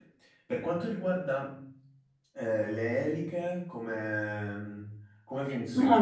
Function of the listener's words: taking over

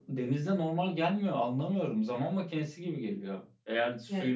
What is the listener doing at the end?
listening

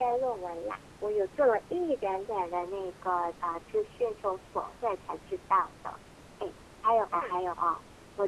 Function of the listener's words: listening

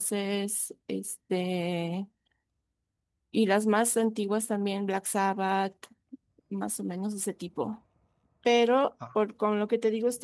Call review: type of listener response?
listening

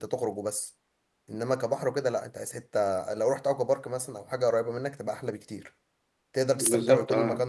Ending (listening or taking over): listening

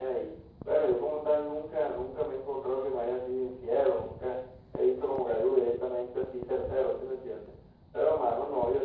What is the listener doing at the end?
listening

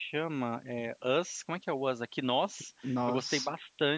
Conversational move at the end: listening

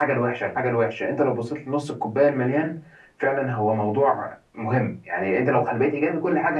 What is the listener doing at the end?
listening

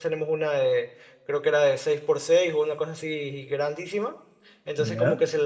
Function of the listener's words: listening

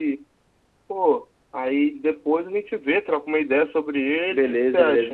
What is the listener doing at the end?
taking over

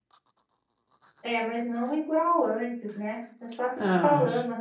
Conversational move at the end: taking over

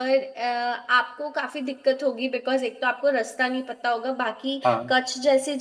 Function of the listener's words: listening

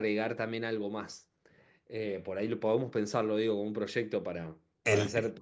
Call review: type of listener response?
listening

